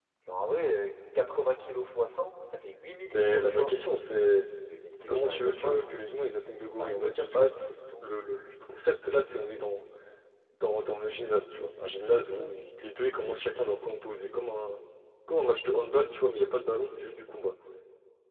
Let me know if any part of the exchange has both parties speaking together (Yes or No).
Yes